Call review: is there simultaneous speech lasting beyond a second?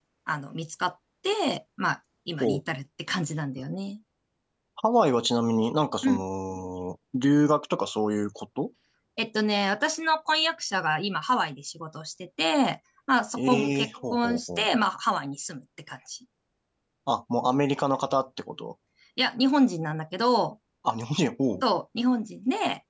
Yes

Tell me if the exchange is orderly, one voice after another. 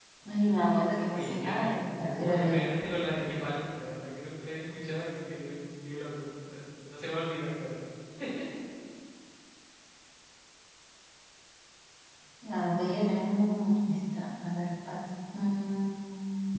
No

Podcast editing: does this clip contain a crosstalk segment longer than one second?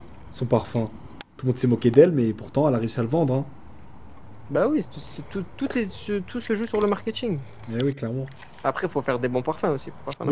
No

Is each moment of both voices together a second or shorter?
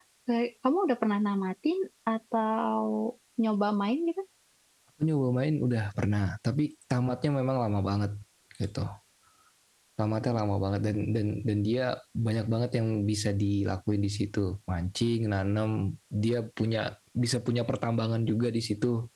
Yes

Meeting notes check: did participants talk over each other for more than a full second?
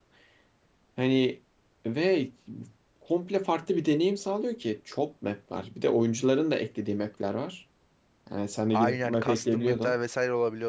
Yes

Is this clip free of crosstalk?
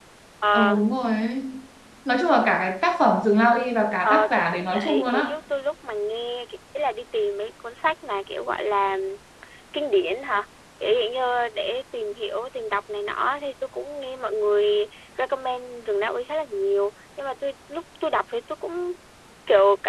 No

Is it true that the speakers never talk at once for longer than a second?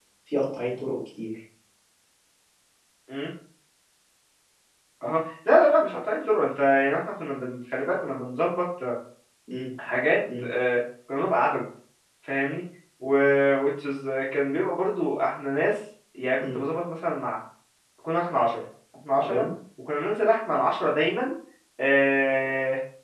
Yes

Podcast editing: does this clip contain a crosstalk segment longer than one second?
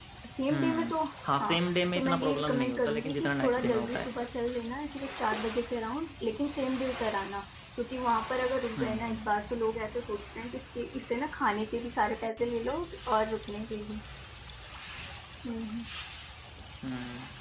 Yes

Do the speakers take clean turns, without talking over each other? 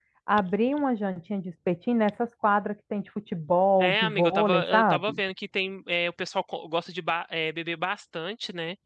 No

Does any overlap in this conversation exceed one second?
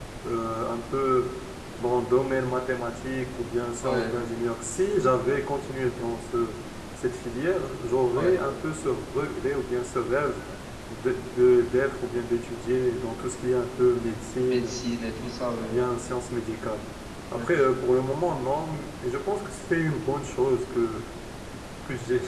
No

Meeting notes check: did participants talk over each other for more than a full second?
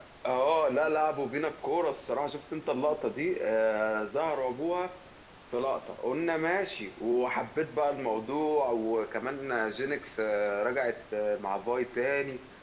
No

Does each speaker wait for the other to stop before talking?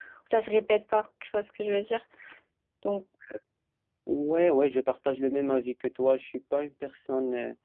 Yes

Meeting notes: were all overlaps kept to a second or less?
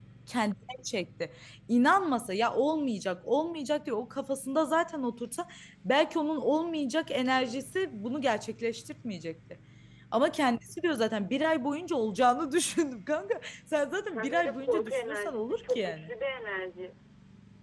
No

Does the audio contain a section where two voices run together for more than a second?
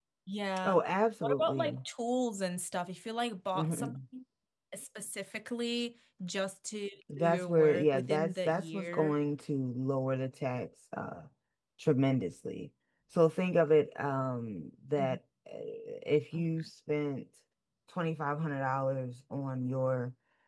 Yes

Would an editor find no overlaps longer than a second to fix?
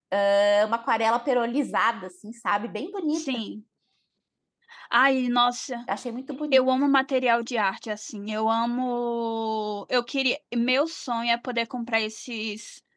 Yes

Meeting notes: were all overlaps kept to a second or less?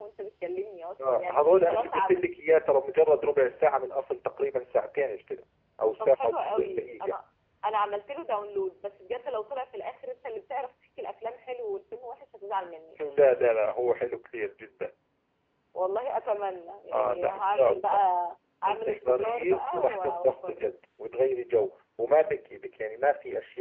No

